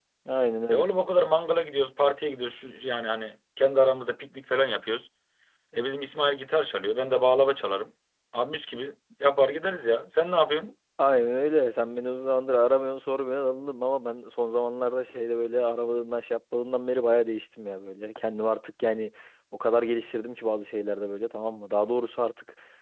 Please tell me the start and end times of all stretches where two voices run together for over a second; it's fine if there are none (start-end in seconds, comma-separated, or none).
none